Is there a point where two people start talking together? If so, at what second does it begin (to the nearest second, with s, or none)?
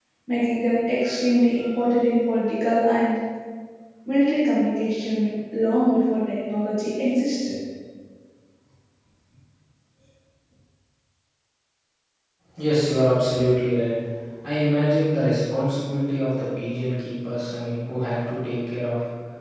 none